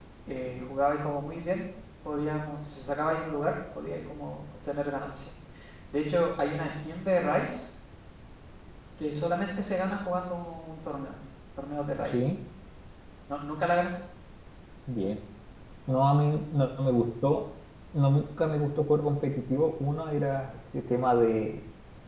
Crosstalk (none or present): none